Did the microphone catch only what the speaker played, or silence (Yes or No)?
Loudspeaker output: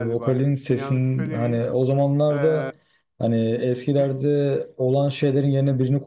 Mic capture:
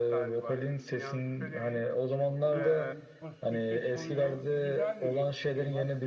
No